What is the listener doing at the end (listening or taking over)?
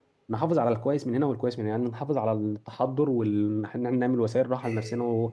listening